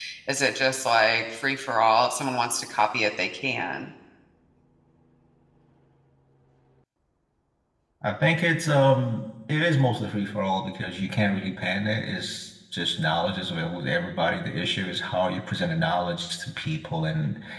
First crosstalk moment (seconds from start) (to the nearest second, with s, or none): none